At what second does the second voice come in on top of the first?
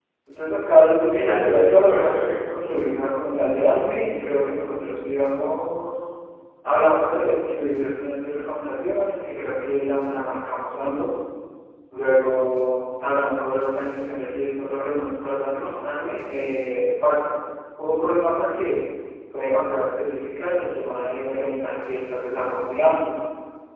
1.0 s

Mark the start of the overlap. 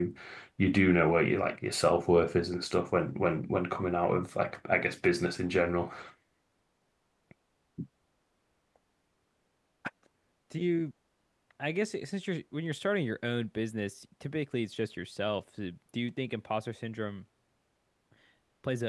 none

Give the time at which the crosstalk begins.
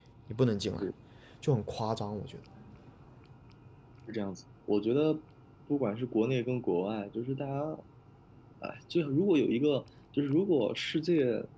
none

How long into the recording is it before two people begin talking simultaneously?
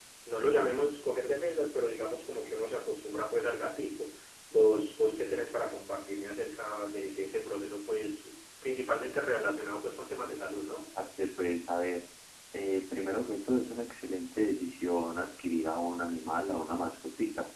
none

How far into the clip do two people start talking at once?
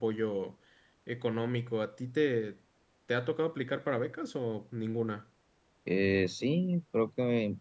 none

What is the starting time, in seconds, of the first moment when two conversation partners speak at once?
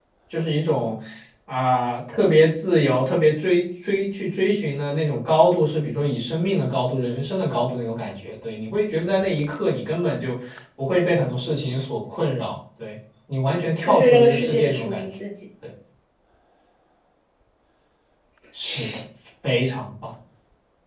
13.9 s

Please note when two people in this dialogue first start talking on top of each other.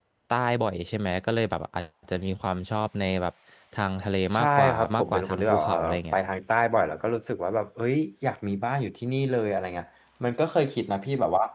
4.3 s

